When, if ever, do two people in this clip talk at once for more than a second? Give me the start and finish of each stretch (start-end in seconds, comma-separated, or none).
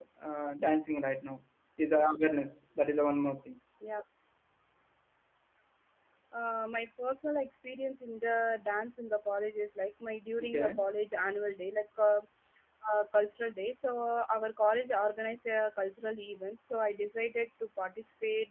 none